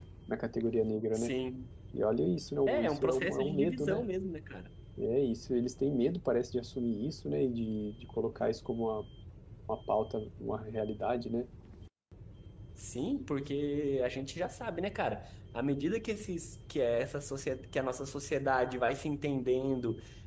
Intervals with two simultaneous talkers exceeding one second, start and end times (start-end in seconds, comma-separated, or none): 2.7-4.0